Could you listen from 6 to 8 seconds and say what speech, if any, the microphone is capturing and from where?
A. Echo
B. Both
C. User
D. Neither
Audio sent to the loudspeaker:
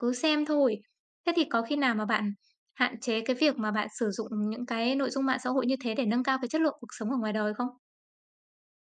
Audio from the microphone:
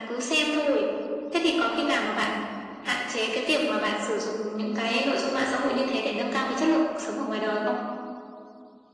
A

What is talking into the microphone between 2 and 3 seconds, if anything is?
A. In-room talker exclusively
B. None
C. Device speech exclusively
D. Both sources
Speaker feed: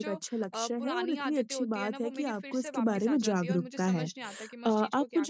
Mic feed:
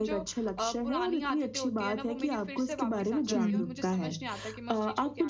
C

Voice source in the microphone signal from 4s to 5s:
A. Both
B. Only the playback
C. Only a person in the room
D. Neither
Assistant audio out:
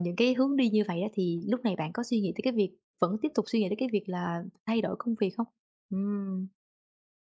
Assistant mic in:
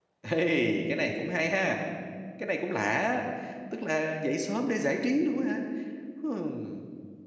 C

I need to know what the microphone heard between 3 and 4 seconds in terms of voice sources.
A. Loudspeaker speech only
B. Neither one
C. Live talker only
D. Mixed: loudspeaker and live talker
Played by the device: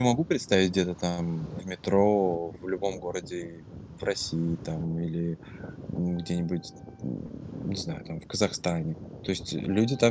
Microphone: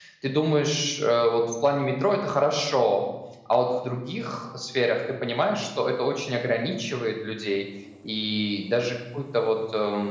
C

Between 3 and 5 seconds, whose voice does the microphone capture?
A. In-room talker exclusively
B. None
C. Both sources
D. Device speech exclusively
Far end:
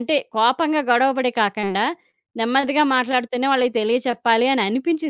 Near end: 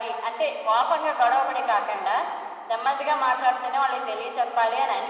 D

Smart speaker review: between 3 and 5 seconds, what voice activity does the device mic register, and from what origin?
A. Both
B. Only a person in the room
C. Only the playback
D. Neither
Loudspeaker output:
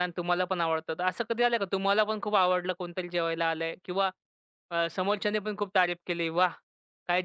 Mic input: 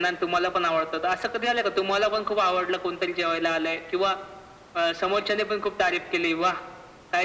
C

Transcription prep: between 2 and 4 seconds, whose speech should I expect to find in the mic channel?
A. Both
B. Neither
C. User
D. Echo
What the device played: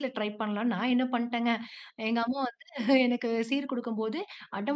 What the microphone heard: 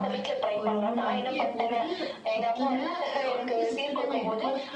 A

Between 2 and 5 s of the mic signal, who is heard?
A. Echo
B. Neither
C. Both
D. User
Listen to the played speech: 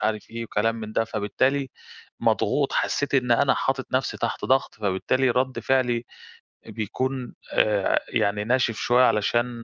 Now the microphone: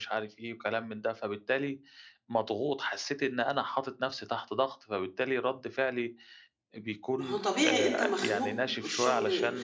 A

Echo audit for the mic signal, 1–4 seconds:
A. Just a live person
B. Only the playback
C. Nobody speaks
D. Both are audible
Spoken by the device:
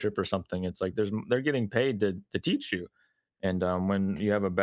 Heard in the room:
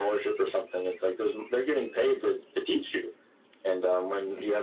B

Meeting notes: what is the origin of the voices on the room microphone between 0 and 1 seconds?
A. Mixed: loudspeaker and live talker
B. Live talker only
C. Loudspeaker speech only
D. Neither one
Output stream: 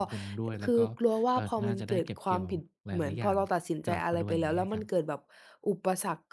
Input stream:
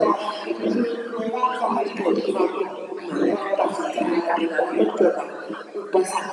C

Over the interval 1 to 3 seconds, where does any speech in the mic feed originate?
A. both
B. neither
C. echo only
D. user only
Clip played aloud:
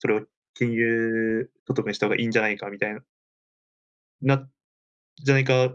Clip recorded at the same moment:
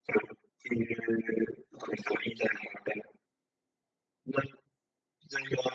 C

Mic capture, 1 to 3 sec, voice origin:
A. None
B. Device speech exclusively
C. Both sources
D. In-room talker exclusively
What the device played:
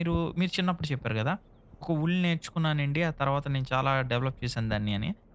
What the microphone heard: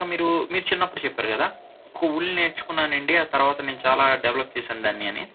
B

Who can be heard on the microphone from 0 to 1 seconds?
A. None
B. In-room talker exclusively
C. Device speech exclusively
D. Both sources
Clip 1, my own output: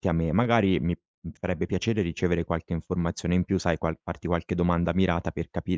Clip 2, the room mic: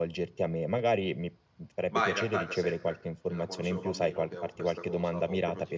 C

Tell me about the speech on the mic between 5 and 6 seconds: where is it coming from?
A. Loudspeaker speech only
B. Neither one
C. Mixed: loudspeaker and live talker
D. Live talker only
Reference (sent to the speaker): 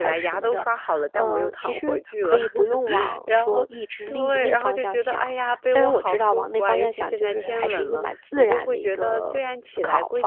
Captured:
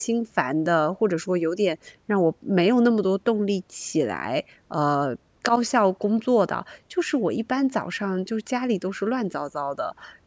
D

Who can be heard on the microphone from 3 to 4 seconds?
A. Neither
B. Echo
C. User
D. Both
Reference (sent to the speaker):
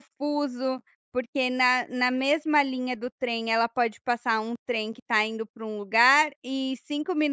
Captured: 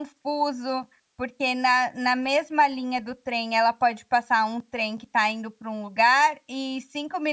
B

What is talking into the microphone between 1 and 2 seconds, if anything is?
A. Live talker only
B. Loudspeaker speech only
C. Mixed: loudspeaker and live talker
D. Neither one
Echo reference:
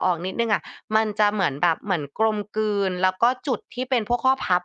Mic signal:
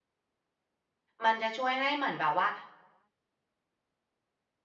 A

